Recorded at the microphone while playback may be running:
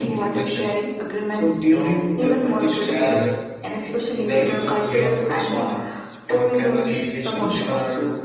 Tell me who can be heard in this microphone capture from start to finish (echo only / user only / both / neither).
both